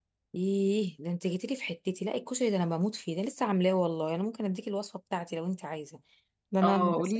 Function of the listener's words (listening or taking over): taking over